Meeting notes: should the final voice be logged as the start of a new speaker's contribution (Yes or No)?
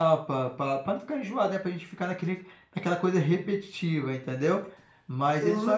No